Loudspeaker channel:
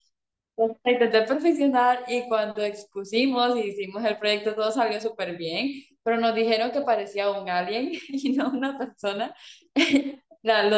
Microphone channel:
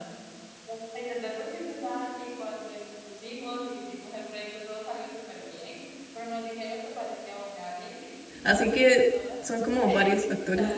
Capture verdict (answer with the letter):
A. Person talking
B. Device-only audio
A